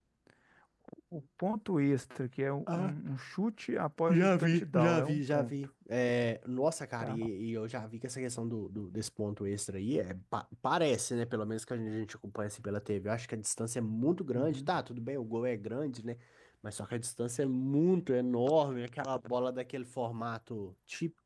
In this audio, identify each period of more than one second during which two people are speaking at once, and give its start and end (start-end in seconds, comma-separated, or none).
4.1-5.5